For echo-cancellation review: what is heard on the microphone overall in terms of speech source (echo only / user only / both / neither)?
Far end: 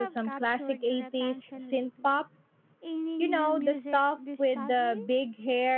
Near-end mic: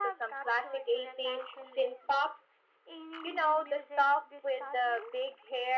echo only